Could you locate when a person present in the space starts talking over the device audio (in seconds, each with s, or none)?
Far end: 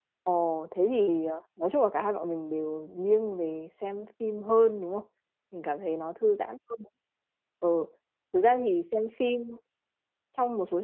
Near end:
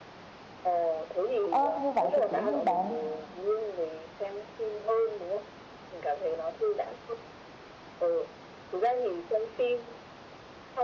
1.5 s